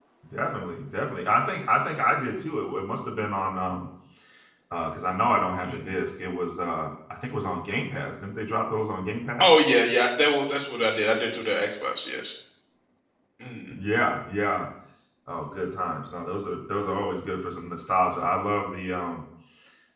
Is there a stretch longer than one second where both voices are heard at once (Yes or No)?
No